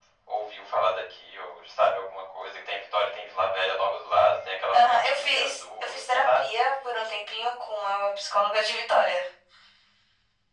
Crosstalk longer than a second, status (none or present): present